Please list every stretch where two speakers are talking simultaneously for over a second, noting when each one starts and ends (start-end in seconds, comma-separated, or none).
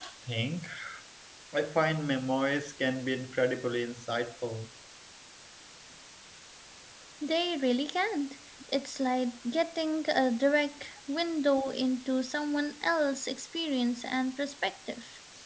none